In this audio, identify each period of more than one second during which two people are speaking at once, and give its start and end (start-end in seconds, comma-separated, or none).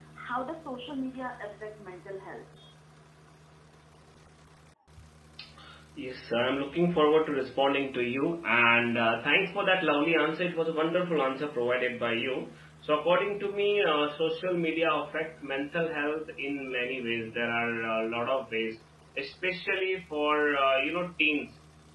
none